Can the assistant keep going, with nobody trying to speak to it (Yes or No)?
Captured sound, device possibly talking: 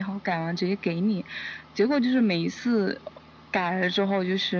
Yes